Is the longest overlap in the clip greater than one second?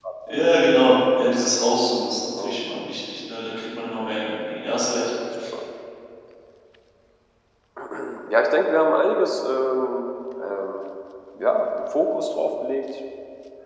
No

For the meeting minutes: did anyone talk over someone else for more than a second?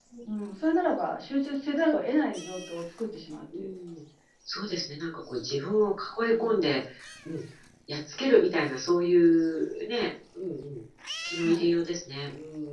No

